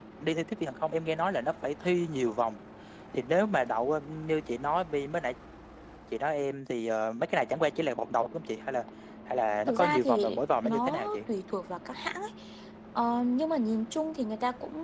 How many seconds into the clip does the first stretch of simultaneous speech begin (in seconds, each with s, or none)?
9.7 s